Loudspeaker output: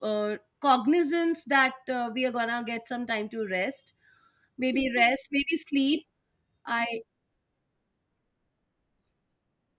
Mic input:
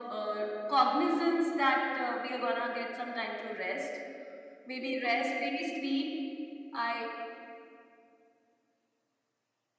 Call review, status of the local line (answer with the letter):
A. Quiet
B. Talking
A